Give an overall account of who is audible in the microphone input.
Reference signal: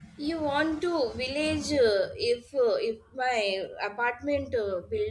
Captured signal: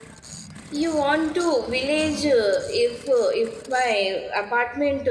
echo only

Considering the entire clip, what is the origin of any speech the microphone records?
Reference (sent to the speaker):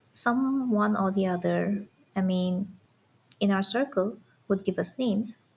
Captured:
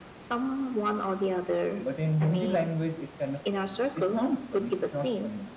both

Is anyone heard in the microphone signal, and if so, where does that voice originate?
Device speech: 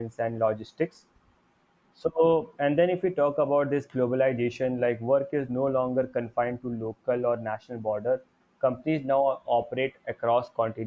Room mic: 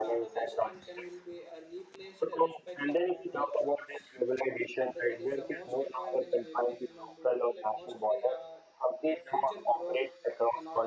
both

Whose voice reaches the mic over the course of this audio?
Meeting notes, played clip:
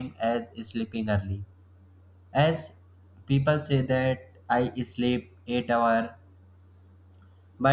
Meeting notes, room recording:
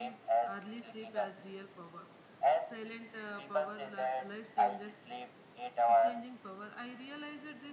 both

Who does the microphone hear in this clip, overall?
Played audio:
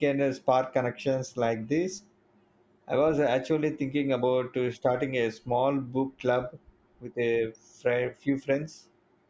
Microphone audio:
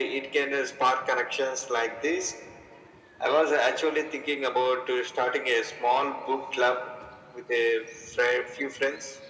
echo only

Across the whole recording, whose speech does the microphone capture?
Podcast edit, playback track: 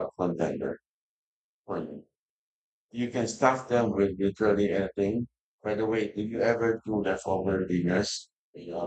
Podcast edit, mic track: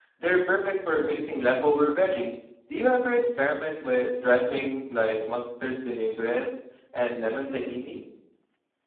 user only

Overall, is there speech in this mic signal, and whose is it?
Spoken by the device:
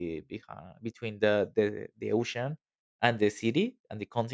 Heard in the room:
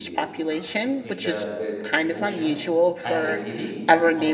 both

